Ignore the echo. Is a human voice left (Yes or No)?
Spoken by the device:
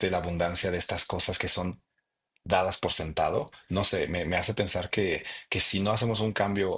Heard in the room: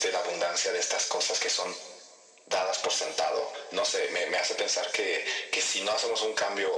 No